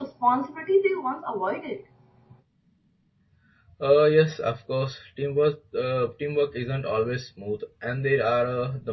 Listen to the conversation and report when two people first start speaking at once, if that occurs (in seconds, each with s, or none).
none